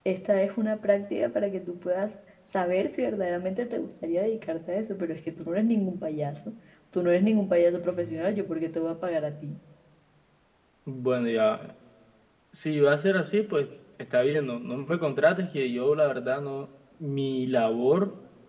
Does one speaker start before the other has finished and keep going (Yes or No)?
No